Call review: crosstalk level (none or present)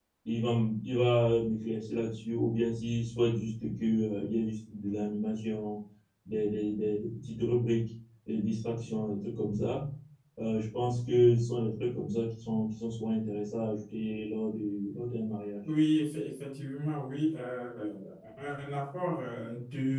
none